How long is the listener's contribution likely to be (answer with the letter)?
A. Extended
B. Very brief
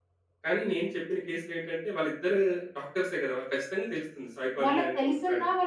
A